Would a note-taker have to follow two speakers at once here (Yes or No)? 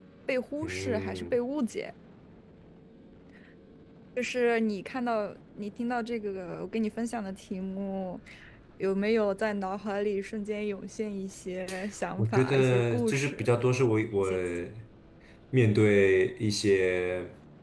Yes